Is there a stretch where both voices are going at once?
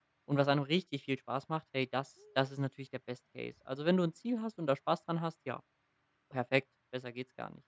No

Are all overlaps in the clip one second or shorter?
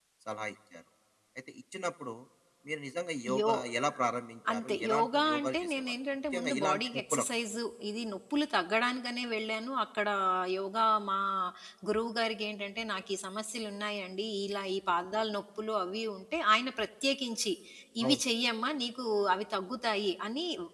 No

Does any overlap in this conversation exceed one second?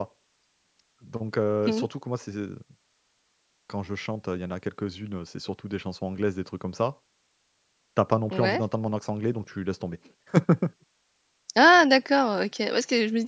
No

